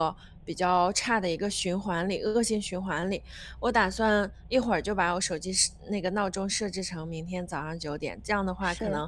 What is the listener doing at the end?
listening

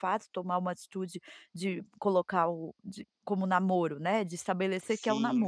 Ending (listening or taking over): taking over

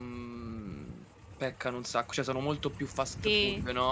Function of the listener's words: taking over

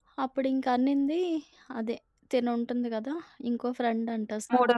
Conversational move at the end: listening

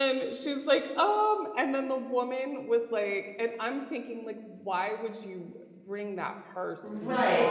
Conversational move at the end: taking over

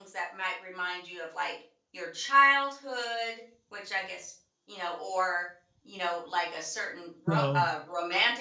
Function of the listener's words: listening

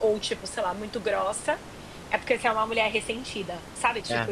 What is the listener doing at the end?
taking over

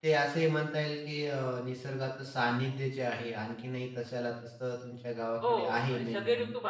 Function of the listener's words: taking over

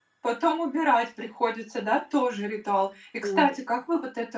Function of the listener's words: listening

